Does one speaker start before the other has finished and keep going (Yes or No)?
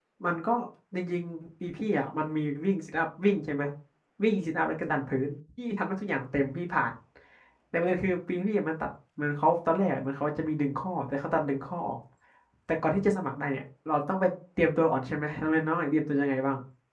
No